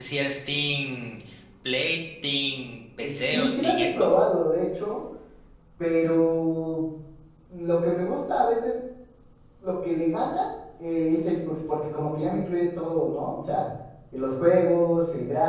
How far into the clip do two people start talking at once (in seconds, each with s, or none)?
3.0 s